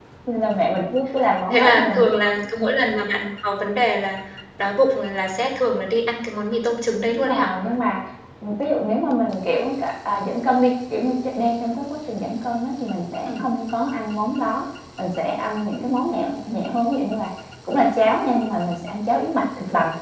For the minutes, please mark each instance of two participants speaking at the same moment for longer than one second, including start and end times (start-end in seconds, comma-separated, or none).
none